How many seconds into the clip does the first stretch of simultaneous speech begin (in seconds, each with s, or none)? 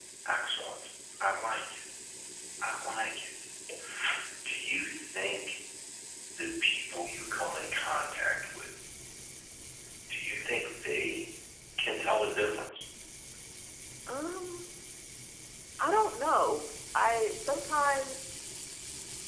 none